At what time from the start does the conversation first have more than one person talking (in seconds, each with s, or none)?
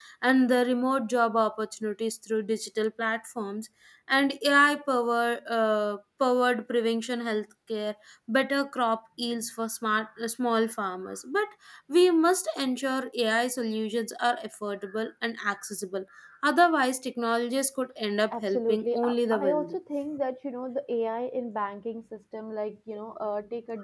18.3 s